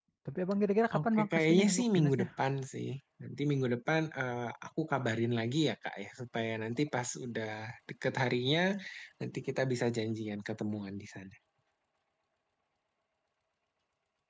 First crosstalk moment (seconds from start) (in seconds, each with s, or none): 1.0 s